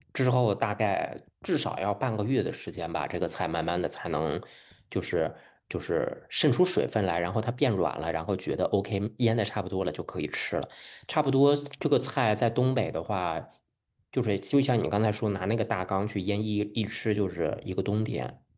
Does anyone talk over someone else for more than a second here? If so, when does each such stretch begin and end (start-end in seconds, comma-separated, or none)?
none